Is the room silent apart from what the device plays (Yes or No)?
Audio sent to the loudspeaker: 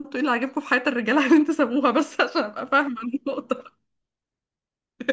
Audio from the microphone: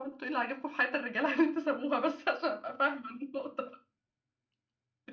Yes